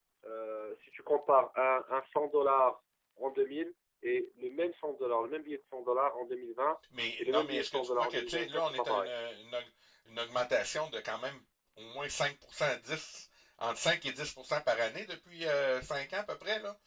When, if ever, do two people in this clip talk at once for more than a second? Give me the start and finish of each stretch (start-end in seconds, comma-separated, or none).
7.2-9.1